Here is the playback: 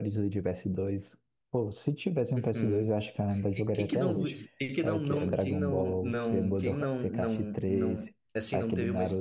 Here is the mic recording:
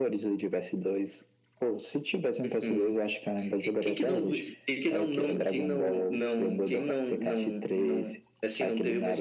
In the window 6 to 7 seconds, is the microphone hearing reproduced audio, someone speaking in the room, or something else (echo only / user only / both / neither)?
echo only